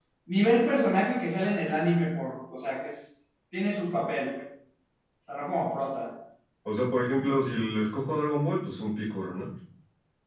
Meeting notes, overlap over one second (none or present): none